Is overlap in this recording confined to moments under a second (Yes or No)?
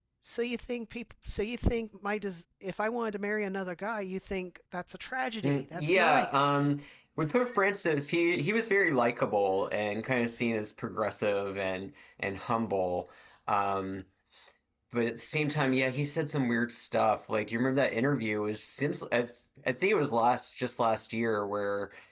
No